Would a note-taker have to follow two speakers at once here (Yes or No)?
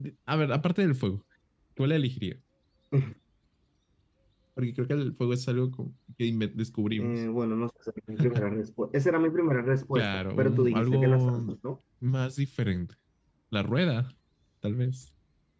Yes